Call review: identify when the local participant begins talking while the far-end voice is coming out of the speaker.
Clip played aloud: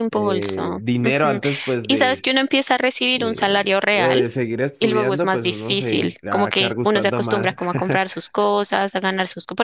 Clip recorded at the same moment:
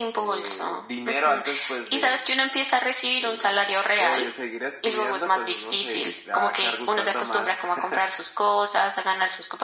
none

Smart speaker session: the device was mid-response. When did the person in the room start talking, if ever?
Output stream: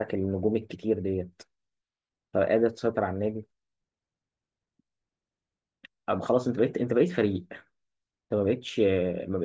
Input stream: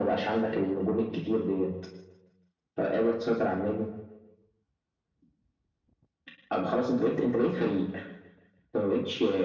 none

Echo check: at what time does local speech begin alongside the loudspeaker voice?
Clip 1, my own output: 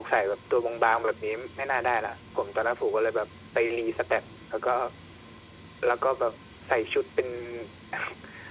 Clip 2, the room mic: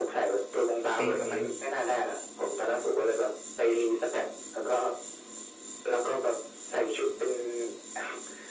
1 s

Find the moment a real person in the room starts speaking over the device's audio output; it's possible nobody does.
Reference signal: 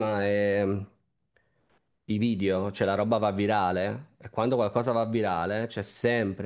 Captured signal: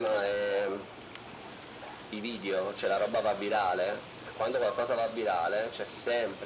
none

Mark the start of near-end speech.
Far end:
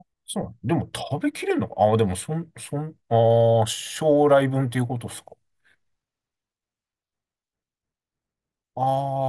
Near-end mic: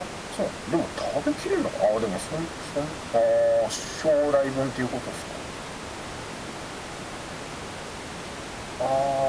none

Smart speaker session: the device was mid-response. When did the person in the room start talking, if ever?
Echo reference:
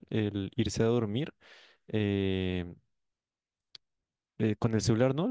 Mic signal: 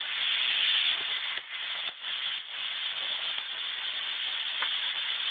none

